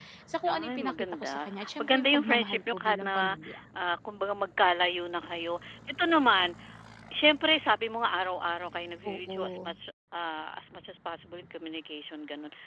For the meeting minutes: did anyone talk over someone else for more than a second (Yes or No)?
Yes